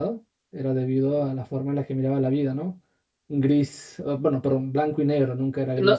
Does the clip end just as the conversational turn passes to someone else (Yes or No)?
Yes